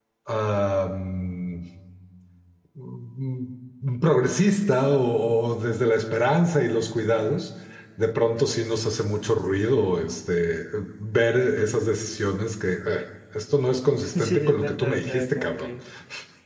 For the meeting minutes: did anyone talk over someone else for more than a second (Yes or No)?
Yes